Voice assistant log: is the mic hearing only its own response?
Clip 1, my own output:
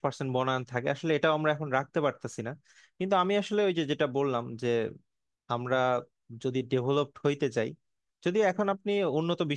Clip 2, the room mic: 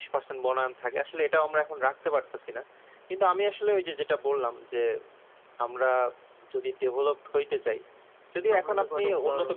No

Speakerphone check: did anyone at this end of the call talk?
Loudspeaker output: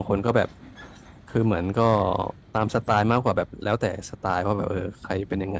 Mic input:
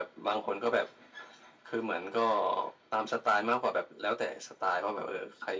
No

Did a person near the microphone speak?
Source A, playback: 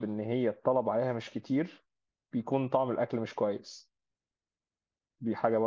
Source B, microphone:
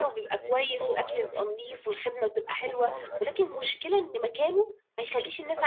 Yes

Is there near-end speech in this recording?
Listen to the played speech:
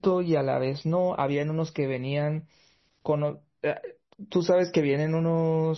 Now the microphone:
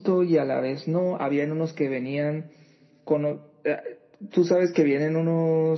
No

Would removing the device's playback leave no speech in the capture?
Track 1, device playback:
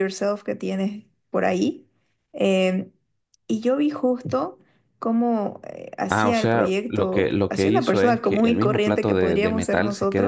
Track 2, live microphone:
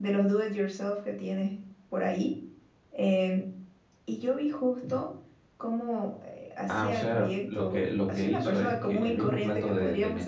Yes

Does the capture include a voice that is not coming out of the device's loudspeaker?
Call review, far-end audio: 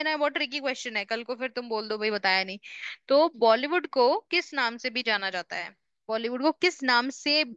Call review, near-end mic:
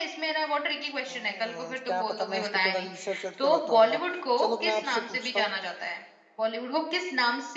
Yes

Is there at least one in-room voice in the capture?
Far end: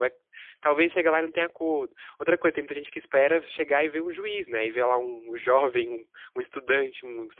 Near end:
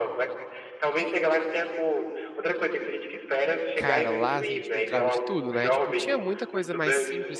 Yes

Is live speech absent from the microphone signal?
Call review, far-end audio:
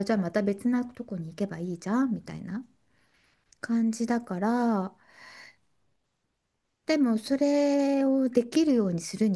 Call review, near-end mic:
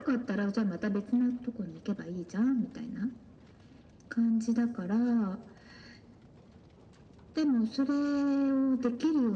Yes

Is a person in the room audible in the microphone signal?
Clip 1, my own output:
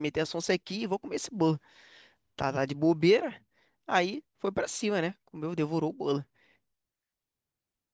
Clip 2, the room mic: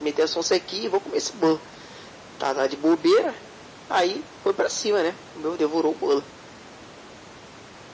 No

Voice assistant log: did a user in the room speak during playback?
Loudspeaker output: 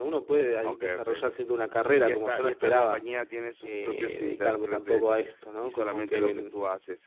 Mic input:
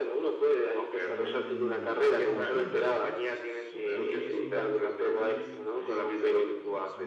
Yes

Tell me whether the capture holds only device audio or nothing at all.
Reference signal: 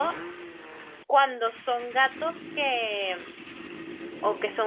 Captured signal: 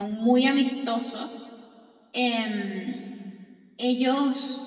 No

